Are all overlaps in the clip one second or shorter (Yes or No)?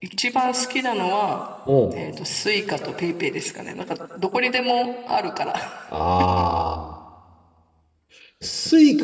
Yes